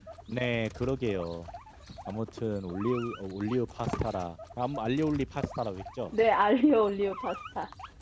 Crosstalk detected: No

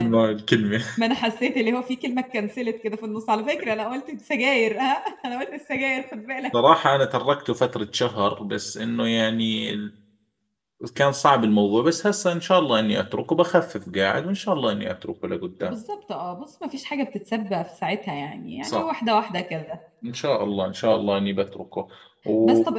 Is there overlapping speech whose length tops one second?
No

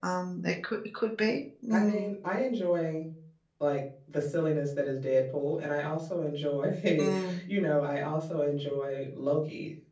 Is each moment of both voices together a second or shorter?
Yes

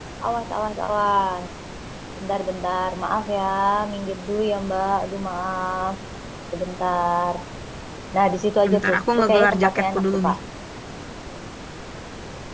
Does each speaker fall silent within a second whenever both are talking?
No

